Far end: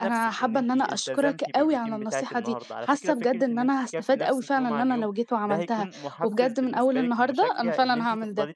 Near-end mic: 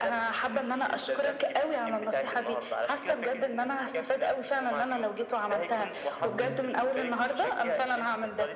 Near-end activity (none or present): present